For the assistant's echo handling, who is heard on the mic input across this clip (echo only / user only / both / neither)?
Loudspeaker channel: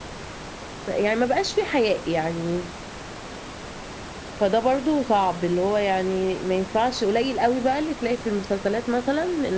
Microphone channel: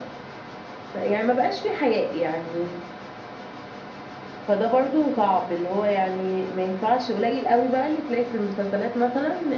echo only